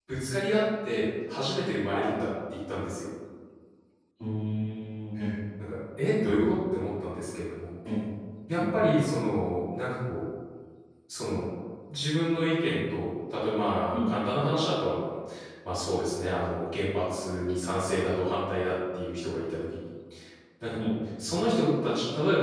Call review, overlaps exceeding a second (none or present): none